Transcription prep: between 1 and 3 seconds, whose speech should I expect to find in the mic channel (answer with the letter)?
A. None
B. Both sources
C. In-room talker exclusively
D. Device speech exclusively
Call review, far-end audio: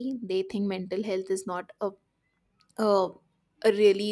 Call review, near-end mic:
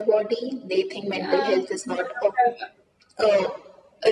B